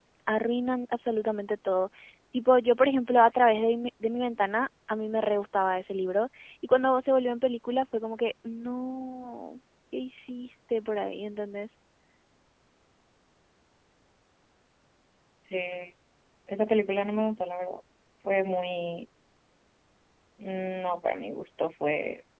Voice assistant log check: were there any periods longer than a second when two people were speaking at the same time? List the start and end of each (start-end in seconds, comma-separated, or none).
none